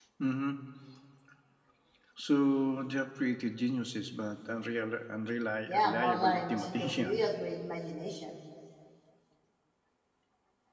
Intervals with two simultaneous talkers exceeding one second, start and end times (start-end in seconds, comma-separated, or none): 5.7-7.2